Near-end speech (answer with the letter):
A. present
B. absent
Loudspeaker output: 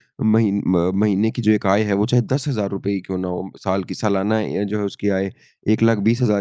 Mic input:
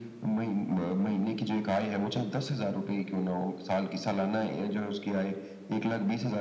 B